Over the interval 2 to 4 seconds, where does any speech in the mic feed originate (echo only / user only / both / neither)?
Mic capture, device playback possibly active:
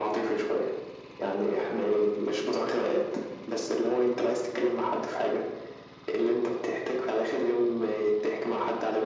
echo only